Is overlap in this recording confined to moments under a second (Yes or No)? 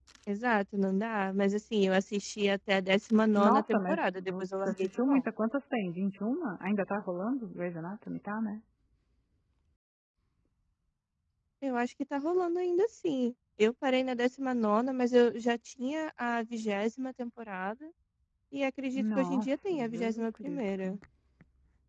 No